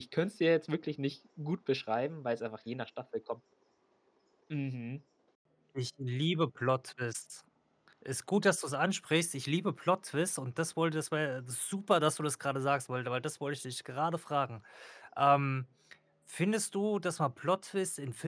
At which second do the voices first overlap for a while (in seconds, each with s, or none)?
none